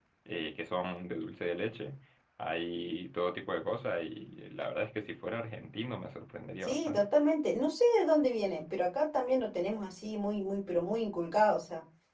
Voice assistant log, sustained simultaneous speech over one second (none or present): none